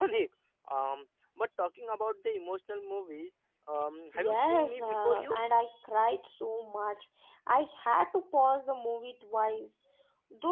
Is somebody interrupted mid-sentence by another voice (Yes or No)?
Yes